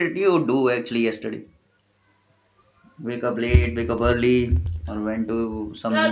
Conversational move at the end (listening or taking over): taking over